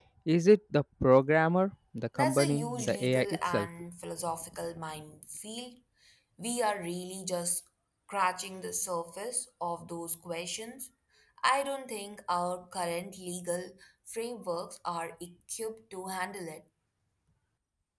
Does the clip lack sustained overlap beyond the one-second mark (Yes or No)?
No